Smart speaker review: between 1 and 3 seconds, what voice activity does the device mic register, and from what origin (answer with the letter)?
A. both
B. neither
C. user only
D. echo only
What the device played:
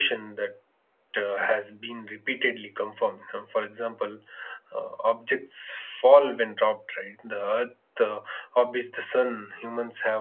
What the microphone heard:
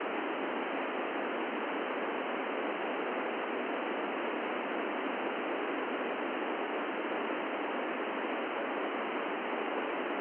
B